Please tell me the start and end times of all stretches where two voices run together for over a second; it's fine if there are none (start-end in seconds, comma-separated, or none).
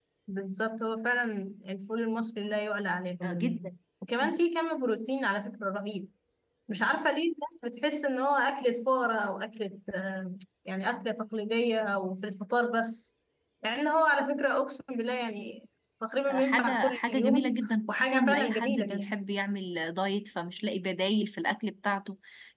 16.3-19.2